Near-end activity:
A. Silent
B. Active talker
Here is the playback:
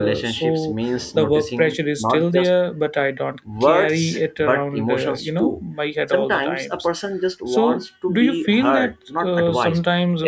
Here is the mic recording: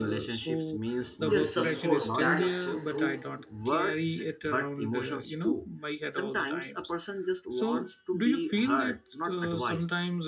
B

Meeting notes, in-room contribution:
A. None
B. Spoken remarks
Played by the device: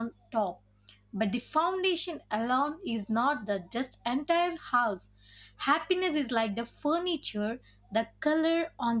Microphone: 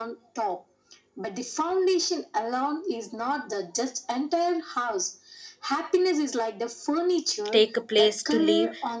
B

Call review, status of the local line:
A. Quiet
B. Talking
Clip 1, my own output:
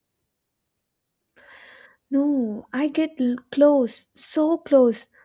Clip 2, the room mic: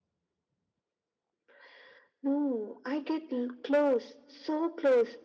A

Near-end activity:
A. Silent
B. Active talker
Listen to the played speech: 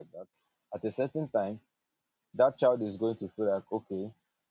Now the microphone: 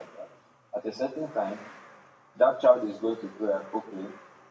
A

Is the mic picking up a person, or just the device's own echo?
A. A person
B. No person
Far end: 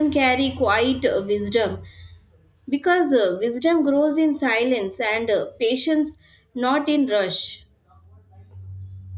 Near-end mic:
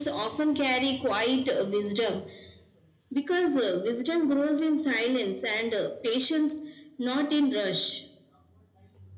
B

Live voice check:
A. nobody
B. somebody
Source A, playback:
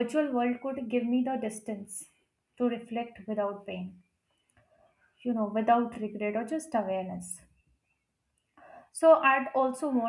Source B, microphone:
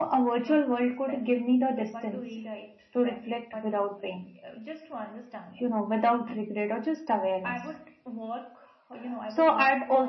B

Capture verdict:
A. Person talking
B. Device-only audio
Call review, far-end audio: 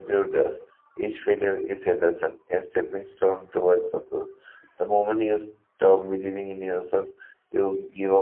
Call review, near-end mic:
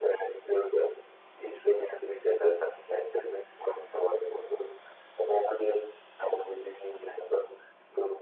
B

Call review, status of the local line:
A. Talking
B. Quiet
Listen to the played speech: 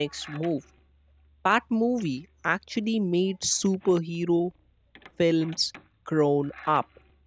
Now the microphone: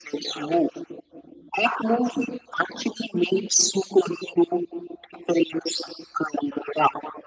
B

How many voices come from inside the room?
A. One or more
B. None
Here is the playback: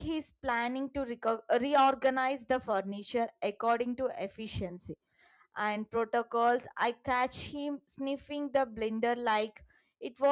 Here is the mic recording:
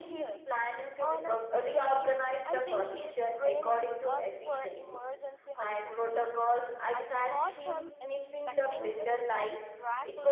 A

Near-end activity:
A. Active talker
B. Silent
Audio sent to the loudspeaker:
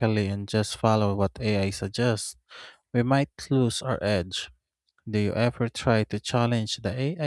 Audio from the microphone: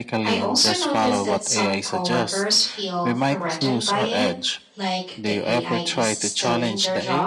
A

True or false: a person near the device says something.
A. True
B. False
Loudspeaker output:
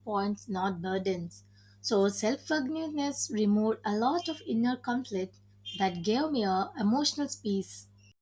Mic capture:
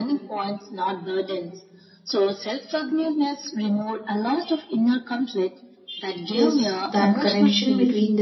A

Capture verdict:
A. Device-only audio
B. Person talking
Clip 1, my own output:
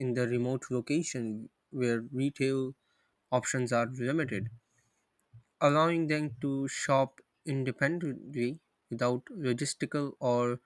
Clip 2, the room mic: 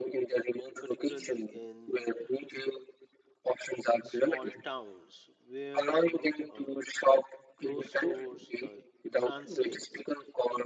B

